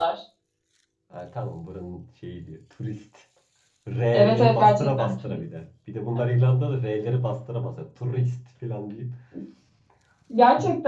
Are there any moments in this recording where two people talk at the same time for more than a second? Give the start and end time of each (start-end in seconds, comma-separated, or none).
4.1-5.4